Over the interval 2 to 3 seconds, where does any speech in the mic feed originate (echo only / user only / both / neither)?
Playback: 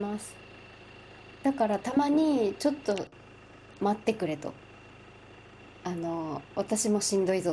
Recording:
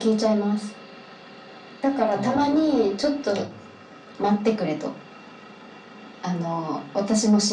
both